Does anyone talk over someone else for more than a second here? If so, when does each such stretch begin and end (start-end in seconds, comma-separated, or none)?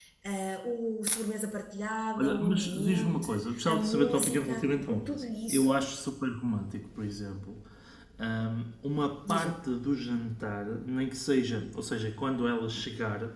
2.2-5.8